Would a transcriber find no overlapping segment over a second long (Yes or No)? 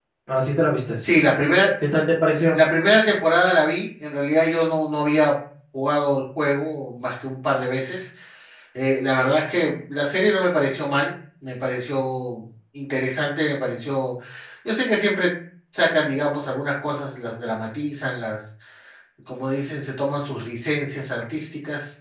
Yes